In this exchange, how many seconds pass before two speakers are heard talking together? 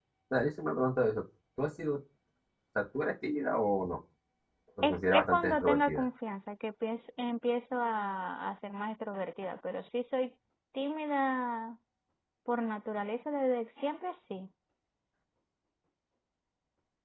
5 s

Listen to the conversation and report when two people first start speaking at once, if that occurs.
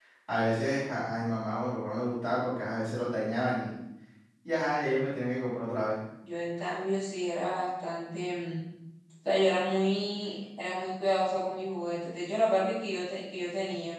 none

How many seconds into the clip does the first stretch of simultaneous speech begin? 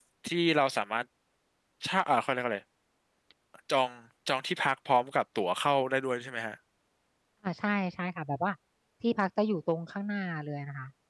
none

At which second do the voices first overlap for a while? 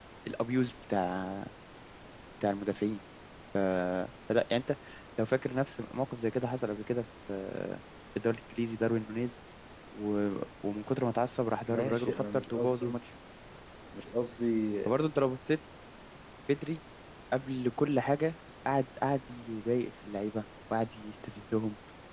12 s

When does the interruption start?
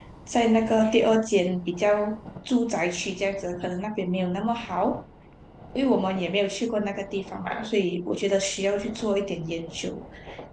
none

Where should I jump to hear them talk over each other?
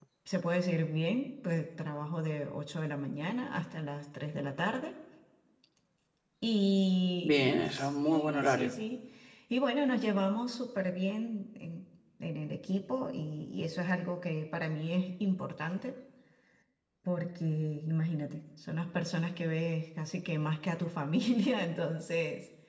7 s

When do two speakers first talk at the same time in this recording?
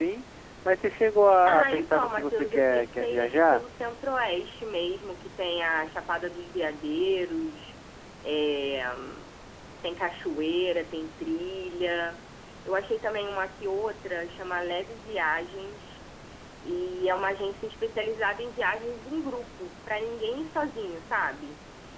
1 s

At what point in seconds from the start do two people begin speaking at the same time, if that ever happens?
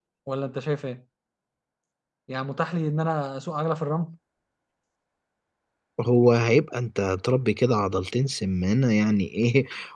none

